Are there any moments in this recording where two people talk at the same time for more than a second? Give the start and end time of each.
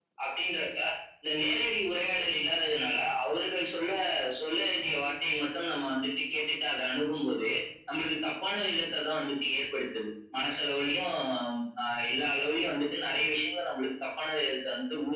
none

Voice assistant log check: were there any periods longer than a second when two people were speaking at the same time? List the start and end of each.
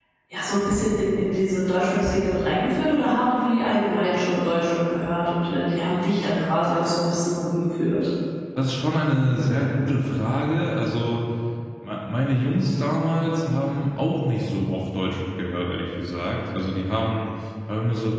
none

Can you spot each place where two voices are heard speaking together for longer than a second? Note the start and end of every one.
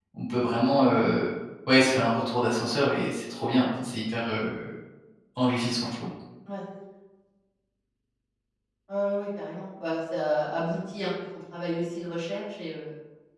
none

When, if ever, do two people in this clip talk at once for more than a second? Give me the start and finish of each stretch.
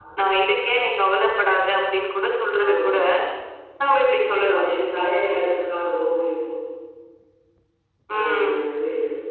none

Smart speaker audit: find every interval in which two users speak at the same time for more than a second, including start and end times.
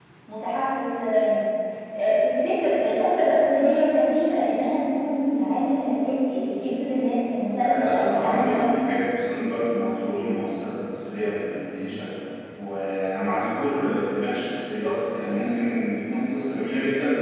7.6-8.8

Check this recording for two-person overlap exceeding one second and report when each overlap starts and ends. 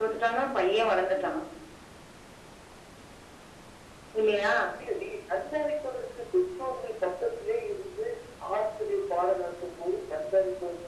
none

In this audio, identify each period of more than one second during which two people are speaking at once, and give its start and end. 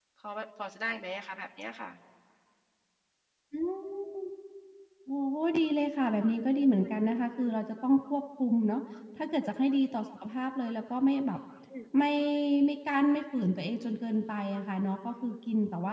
none

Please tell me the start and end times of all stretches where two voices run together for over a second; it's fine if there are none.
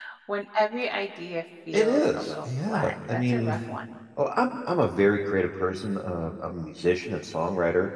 1.7-3.6

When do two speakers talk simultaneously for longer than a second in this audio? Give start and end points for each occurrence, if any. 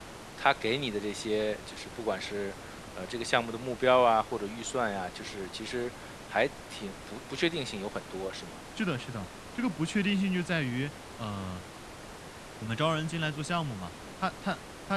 none

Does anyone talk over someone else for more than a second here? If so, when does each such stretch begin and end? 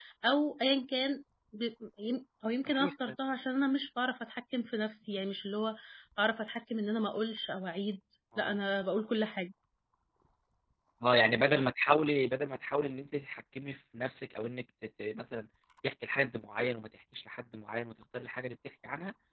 none

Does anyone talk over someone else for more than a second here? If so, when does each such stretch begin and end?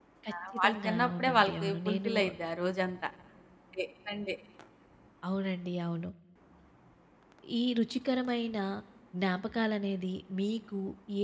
0.5-2.1

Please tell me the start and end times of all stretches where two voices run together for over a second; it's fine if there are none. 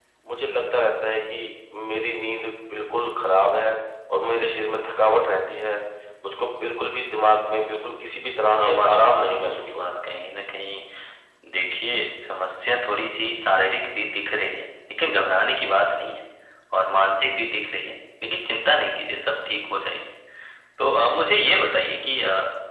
8.6-10.0

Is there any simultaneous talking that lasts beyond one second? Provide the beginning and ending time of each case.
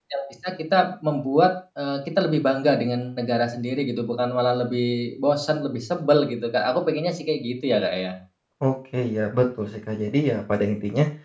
none

